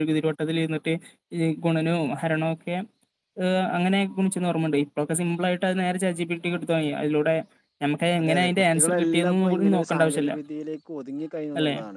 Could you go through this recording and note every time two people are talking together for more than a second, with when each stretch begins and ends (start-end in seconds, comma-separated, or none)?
8.2-10.3